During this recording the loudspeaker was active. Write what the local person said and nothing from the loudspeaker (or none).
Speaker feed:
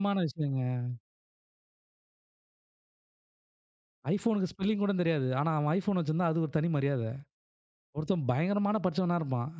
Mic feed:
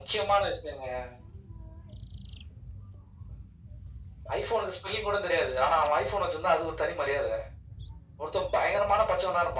none